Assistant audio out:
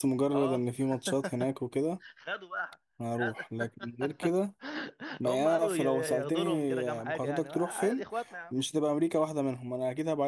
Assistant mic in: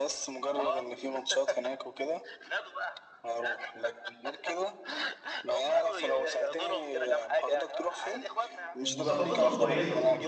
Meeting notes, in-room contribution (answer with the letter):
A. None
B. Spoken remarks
B